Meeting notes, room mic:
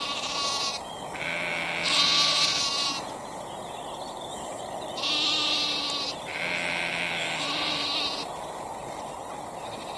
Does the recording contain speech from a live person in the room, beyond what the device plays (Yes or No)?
No